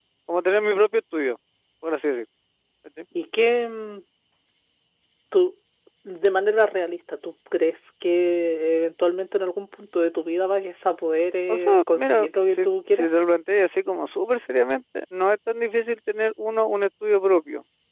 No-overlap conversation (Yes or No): No